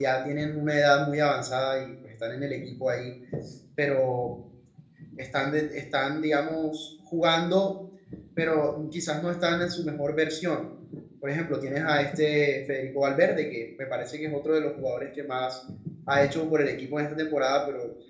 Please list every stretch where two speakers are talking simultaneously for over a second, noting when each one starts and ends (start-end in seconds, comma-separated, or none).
none